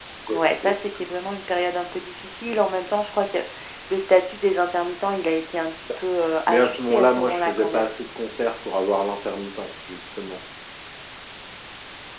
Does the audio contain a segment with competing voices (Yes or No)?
Yes